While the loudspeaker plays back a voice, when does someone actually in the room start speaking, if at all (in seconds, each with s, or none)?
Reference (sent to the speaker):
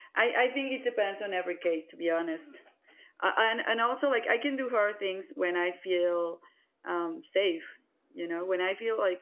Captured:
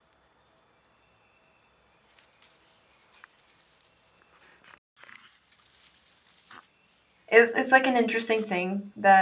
7.3 s